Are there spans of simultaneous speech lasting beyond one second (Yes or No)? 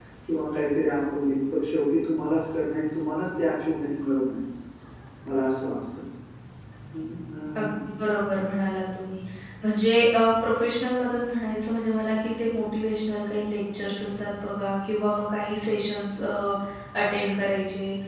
No